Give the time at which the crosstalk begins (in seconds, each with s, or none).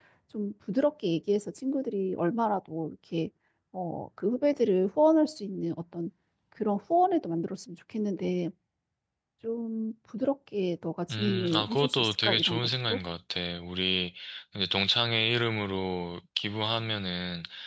11.1 s